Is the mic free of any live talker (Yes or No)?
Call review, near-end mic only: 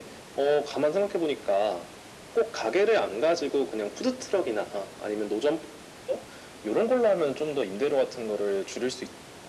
Yes